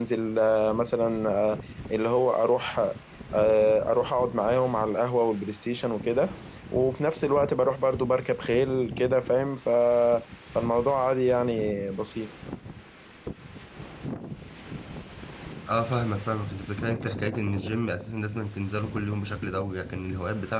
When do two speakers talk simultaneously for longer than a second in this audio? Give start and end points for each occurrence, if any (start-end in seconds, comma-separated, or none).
none